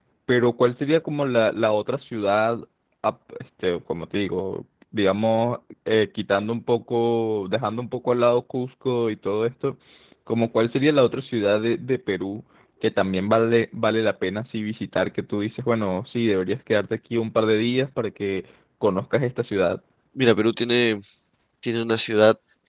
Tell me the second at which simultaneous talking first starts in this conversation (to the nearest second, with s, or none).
none